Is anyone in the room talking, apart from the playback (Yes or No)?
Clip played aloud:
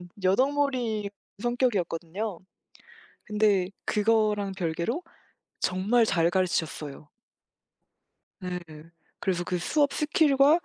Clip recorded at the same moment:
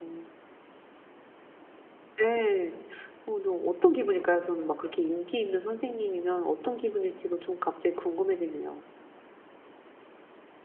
Yes